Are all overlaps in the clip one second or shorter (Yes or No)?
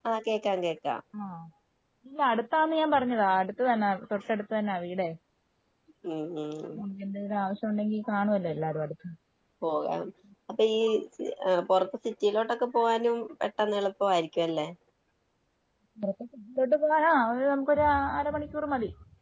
Yes